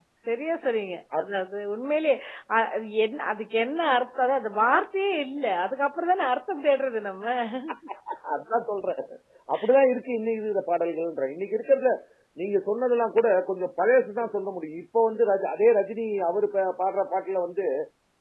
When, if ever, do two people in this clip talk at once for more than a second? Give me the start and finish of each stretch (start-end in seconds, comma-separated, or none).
none